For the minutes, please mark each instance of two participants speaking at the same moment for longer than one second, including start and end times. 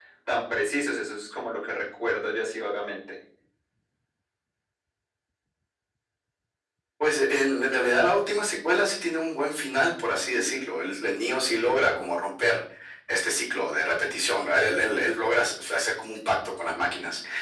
none

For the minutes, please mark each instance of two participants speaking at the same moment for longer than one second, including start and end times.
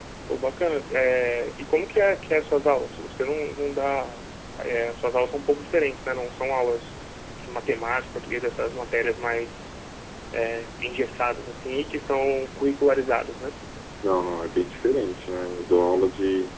none

